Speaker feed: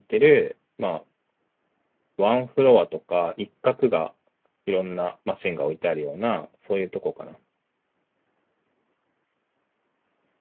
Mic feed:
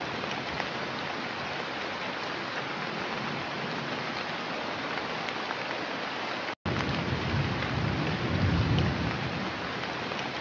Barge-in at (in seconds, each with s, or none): none